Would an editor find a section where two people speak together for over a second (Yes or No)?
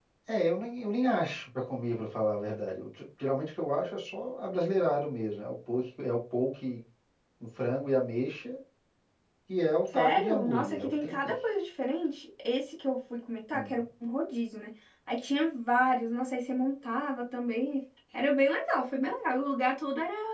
Yes